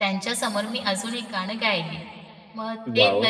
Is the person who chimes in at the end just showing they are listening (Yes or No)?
Yes